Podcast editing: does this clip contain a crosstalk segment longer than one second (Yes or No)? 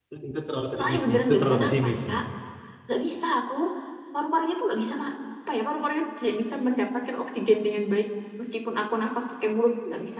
Yes